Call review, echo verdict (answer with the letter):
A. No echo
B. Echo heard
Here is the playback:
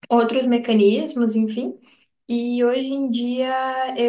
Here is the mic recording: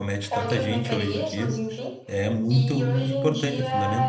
B